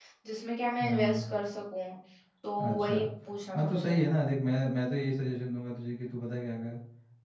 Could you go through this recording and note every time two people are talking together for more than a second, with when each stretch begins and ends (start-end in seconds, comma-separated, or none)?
none